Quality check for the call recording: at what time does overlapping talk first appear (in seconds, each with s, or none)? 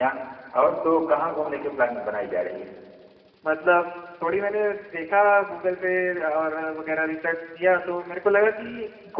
none